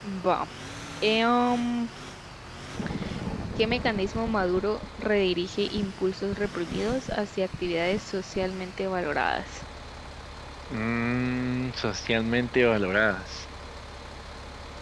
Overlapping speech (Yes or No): No